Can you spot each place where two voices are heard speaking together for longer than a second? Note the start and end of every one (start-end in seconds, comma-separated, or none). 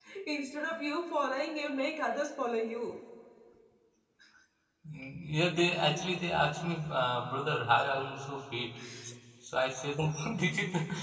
none